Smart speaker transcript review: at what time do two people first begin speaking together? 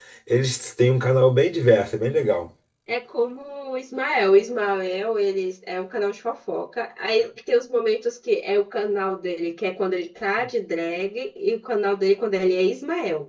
none

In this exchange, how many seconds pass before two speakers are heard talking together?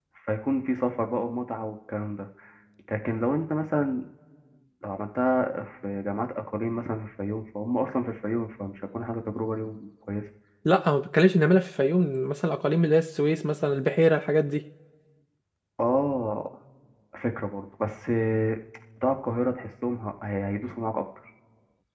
none

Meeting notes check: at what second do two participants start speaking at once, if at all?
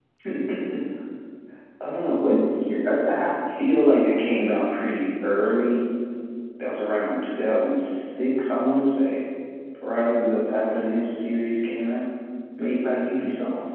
none

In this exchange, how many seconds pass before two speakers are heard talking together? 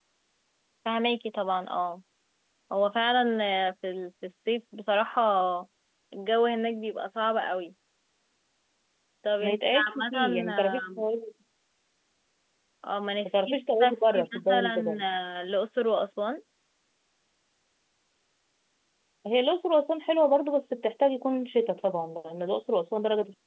9 s

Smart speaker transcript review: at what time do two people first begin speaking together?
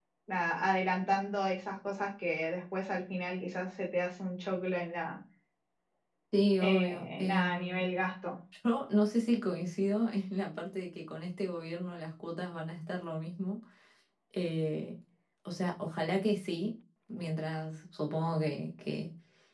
7 s

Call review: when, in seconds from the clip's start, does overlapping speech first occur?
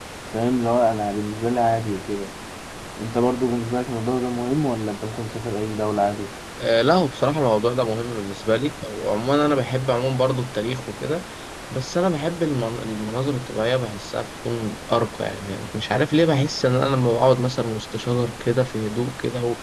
none

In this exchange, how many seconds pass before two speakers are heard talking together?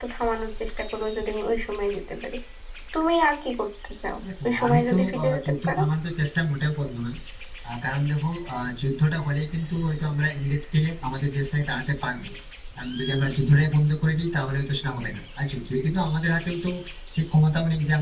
4 s

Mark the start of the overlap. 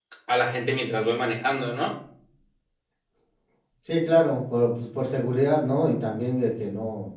none

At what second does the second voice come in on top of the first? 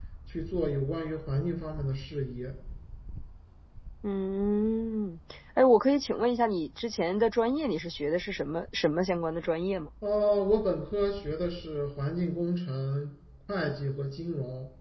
none

